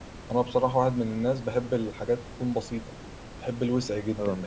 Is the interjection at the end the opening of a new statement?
No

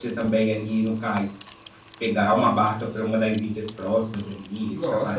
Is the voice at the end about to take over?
Yes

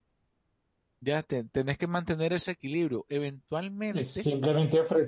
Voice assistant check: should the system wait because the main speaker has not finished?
No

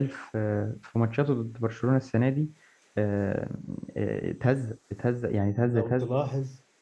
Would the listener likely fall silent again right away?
No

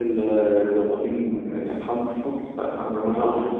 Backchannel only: Yes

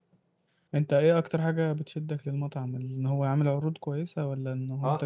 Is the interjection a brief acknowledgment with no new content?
No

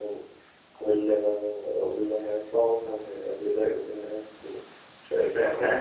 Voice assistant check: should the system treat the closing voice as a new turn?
No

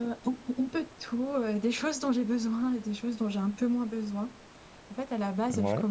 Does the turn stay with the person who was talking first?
Yes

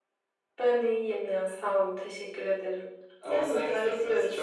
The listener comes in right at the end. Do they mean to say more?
Yes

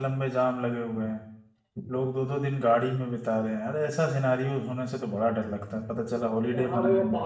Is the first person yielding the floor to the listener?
Yes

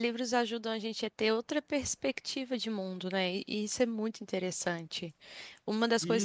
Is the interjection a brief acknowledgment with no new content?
No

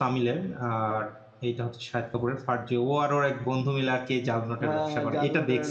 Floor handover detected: Yes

